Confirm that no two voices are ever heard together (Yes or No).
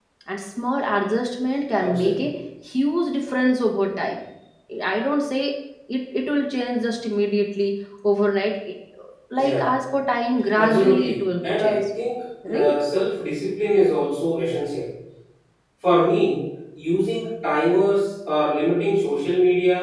No